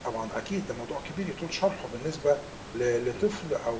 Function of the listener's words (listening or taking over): listening